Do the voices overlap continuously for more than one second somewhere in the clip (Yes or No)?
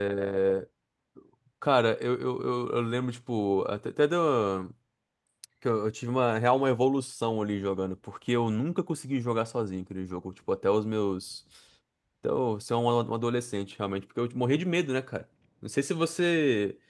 No